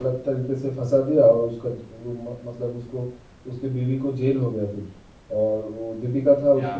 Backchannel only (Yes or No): Yes